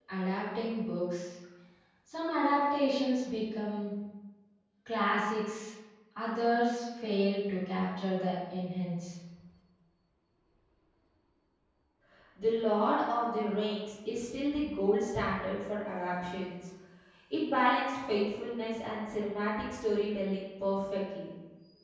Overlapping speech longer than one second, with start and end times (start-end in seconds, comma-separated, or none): none